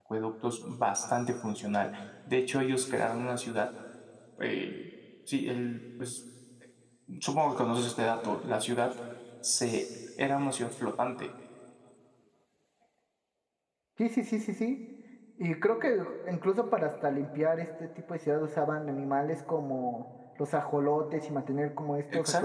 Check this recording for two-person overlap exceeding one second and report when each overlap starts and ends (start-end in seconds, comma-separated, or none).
none